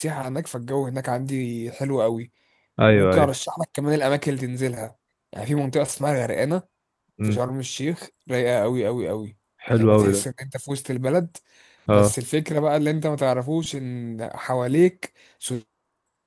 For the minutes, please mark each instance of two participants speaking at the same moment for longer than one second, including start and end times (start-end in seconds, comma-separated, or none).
none